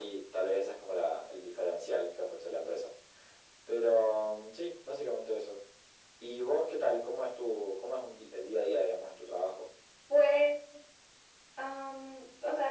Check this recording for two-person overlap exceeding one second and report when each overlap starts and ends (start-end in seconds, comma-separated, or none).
none